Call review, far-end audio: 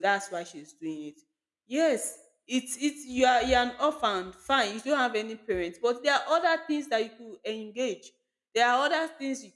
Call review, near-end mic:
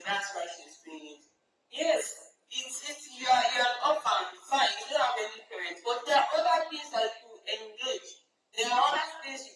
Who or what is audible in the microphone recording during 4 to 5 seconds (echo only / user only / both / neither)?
echo only